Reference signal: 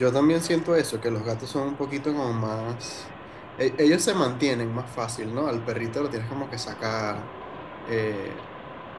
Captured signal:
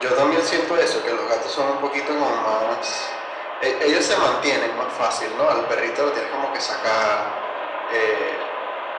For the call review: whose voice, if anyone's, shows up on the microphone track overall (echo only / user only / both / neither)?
echo only